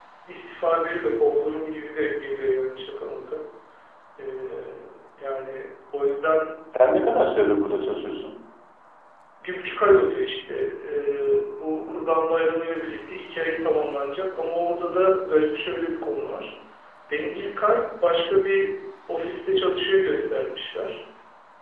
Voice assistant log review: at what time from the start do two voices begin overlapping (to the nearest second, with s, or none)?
none